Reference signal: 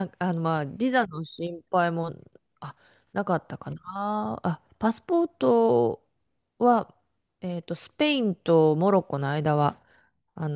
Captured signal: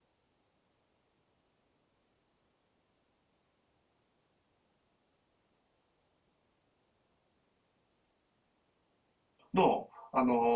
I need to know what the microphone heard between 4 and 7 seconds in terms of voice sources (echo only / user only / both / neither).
neither